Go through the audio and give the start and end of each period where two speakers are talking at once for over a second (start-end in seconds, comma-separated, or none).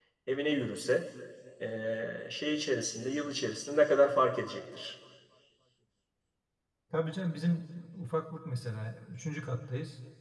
none